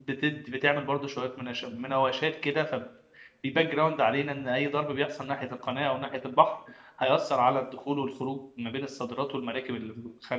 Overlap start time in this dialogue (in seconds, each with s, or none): none